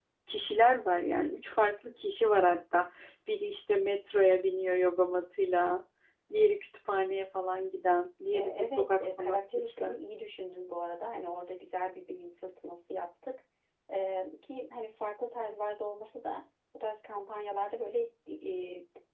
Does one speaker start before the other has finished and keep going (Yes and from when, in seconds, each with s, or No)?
Yes, from 8.3 s